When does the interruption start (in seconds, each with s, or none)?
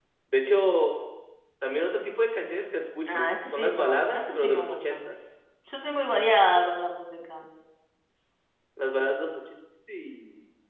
3.0 s